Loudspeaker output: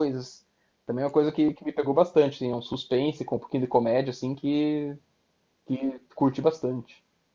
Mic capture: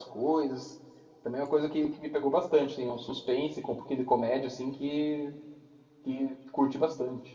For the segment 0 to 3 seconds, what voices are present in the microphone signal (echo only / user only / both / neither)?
echo only